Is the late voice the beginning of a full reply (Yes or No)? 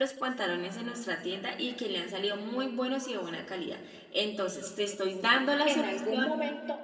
Yes